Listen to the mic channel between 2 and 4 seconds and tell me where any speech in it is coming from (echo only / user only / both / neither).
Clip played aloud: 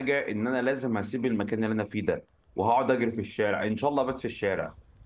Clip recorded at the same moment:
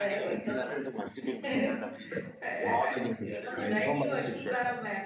both